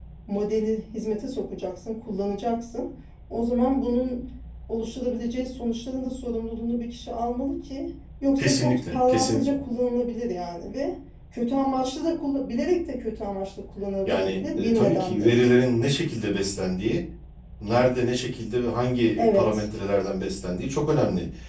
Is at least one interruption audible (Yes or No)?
Yes